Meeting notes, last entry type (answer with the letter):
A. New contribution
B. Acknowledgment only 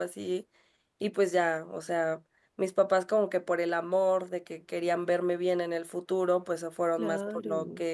B